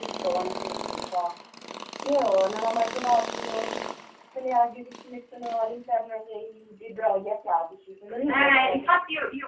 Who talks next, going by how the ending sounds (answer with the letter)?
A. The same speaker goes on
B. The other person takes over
B